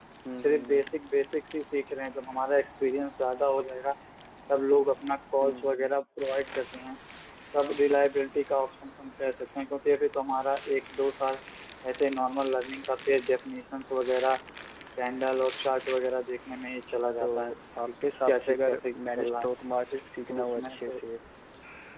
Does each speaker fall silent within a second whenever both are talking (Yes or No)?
No